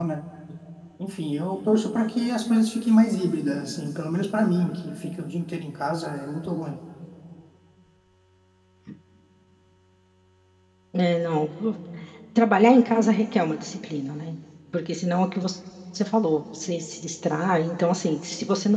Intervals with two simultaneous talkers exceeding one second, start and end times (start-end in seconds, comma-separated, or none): none